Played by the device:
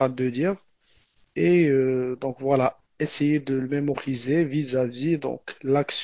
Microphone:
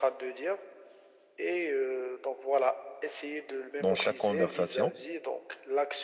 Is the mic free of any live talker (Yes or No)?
No